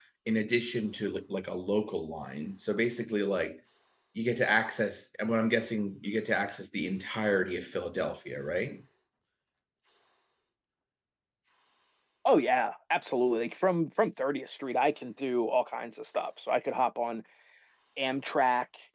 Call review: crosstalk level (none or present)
none